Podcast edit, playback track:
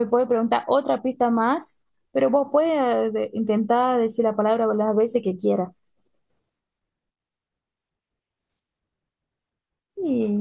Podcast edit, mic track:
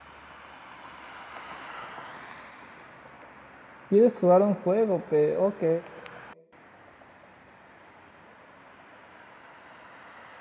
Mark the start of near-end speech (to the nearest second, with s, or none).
4 s